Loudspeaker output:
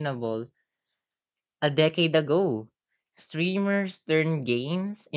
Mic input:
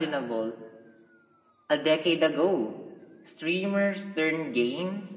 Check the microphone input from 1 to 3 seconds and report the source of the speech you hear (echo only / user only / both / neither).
echo only